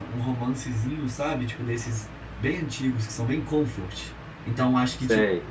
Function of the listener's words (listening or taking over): listening